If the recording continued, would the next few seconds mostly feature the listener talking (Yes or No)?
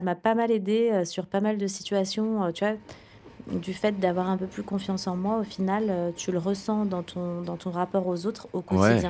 Yes